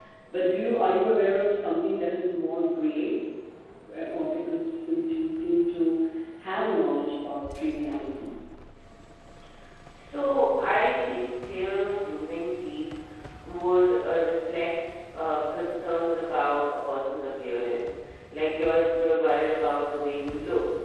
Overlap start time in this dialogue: none

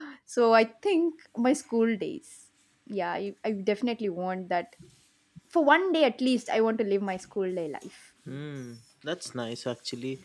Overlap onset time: none

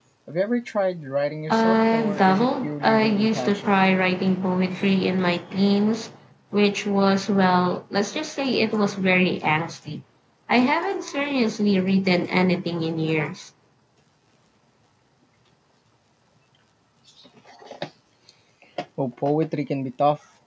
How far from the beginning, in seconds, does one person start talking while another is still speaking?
1 s

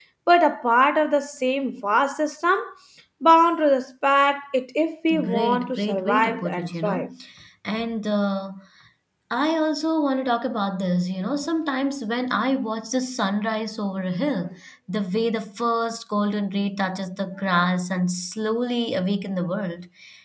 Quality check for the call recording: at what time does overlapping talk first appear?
5 s

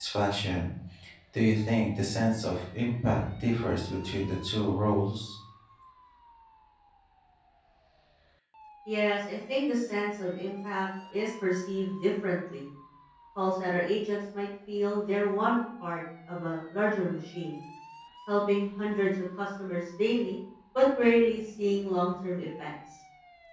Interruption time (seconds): none

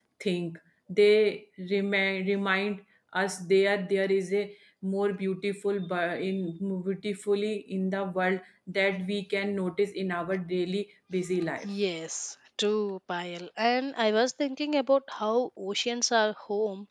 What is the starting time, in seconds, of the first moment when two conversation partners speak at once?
none

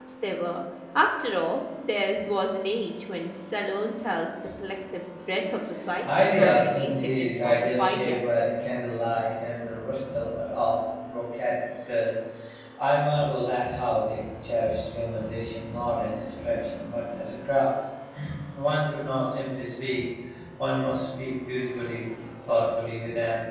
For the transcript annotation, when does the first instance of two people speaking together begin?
6 s

